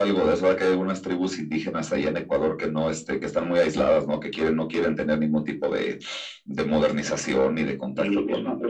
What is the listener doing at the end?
taking over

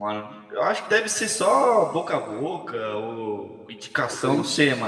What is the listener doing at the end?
listening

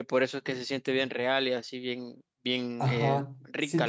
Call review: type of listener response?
taking over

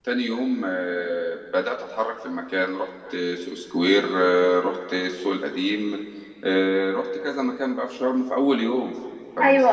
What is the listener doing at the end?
listening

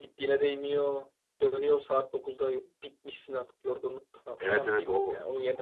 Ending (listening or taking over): taking over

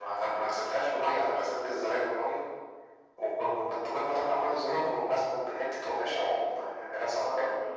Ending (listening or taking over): taking over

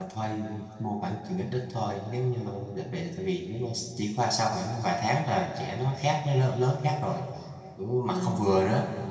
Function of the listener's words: taking over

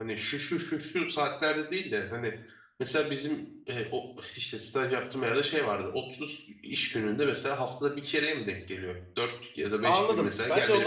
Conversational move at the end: taking over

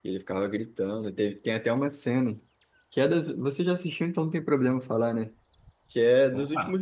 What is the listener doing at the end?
listening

